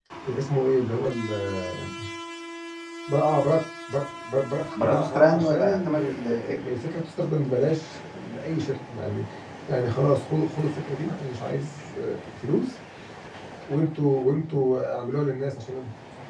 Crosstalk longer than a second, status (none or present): present